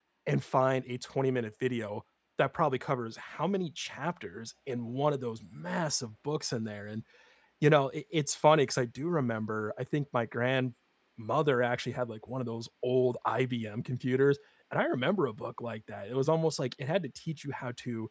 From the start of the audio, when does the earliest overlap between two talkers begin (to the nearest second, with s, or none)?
none